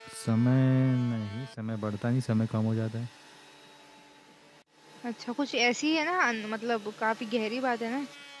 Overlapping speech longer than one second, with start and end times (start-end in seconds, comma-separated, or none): none